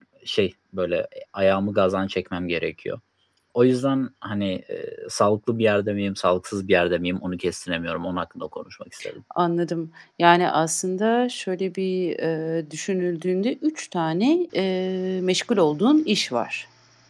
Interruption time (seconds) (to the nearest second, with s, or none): none